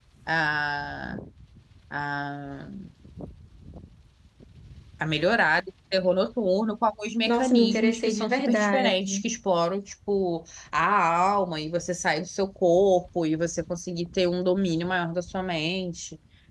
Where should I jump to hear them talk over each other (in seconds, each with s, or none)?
7.3 s